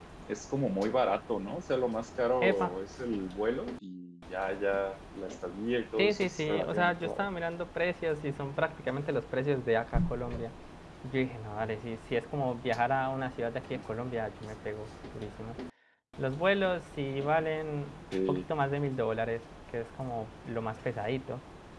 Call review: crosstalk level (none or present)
present